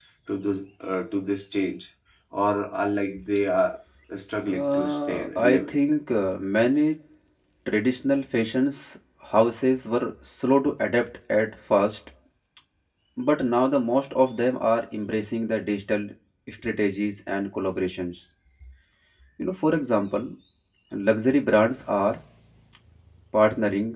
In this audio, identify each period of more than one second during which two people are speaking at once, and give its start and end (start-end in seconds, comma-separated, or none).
4.5-5.8